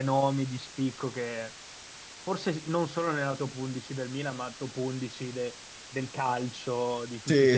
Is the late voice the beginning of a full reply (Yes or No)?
Yes